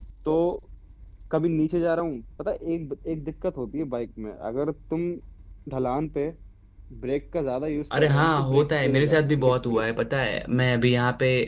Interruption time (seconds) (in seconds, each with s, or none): 7.9 s